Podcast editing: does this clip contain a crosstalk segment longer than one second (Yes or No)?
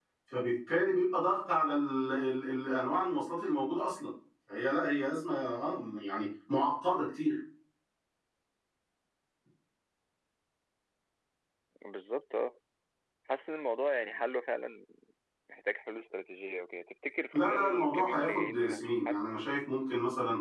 Yes